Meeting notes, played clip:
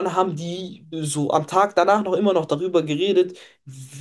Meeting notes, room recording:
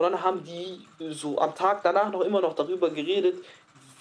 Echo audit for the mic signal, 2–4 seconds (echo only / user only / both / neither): echo only